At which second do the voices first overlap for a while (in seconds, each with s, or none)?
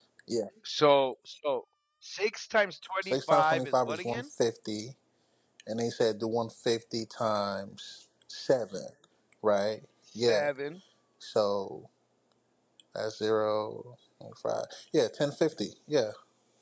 3.0 s